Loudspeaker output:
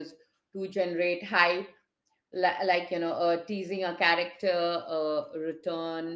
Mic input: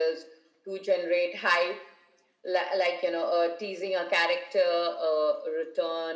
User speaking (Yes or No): No